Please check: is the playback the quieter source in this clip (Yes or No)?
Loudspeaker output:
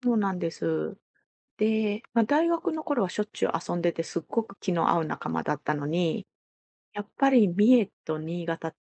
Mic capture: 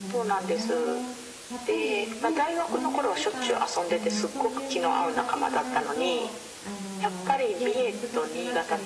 No